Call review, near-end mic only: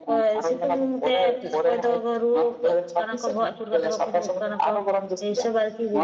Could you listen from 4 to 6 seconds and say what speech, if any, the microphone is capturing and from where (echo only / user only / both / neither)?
both